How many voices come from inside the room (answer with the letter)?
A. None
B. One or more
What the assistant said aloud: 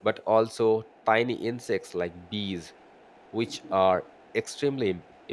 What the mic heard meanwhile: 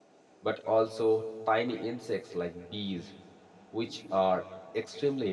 A